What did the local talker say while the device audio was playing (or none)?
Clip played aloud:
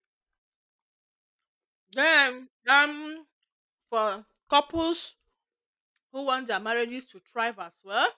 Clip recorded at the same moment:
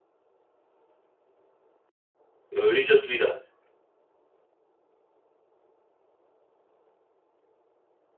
your religious leaders